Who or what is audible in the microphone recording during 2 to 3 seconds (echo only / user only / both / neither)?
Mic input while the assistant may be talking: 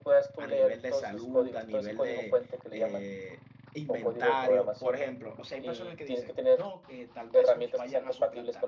both